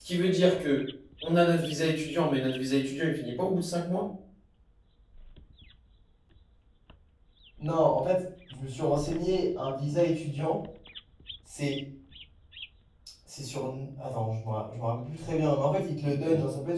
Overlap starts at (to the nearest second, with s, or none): none